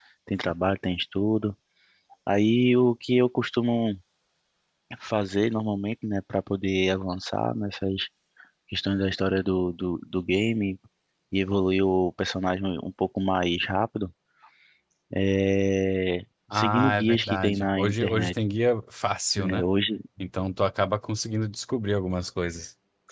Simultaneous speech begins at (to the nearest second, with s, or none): 17 s